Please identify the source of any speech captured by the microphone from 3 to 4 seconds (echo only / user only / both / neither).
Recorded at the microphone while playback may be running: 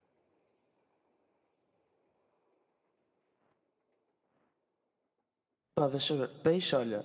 neither